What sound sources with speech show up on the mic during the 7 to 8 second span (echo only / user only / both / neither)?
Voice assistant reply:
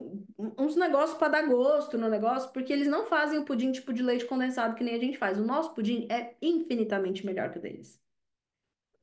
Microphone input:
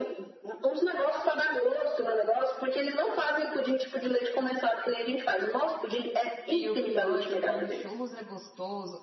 both